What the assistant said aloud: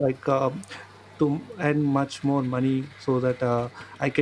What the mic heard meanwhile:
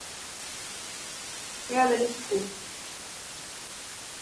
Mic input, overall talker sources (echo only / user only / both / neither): user only